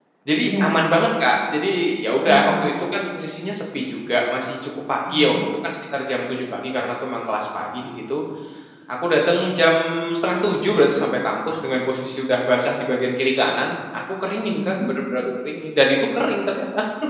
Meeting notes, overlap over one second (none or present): none